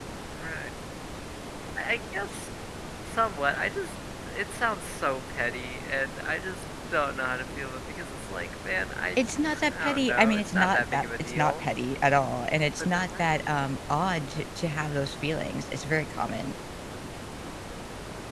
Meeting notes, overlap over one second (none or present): present